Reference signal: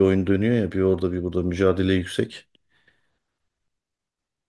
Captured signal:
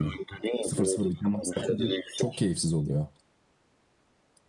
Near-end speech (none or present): present